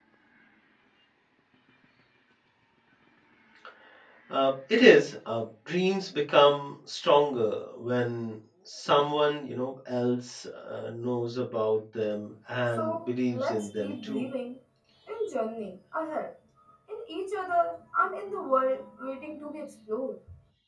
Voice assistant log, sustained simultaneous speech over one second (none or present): present